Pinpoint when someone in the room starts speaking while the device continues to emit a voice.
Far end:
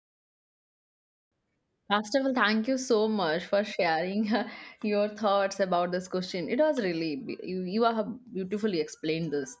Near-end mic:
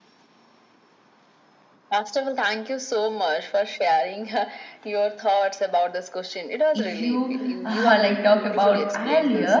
6.7 s

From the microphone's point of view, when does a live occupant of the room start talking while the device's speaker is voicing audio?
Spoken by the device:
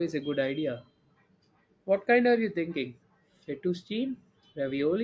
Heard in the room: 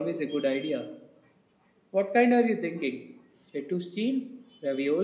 none

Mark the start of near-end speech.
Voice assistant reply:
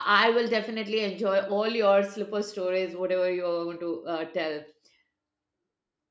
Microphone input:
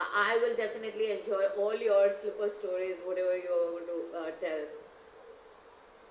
none

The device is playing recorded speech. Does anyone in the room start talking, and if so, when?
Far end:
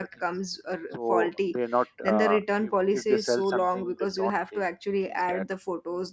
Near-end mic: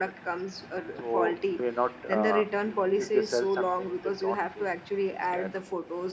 none

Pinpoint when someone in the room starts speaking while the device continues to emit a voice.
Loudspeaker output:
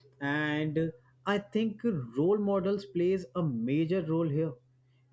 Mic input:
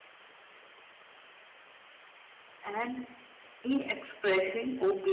2.6 s

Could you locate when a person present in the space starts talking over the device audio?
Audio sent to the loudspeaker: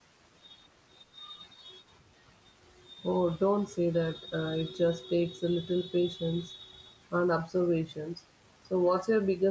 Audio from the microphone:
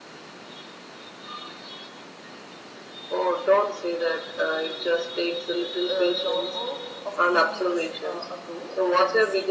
5.9 s

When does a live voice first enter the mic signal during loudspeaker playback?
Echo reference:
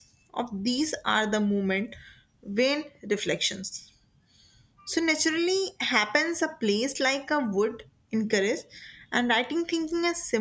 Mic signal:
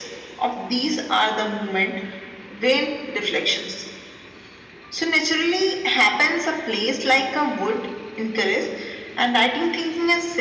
none

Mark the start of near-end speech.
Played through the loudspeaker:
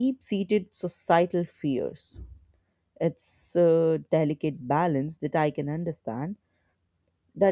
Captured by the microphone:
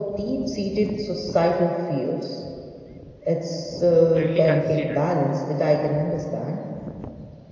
4.2 s

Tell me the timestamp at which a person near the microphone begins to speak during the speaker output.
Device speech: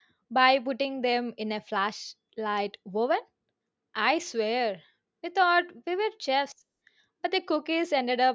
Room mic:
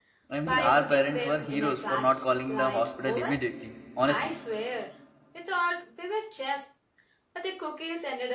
0.4 s

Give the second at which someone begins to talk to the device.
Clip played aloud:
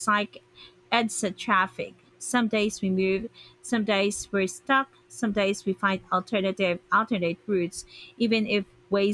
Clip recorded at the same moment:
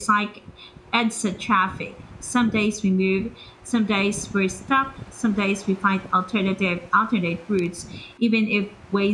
none

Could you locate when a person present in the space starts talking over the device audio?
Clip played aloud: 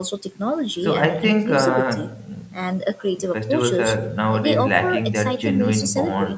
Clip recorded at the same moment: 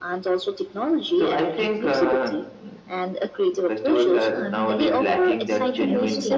3.9 s

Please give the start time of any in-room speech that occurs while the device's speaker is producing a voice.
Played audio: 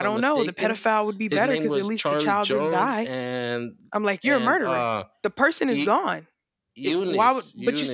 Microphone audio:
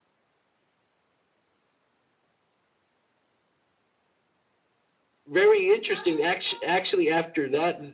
5.2 s

